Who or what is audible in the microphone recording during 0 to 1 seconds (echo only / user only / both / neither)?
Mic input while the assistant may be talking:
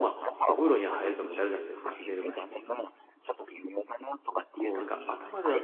both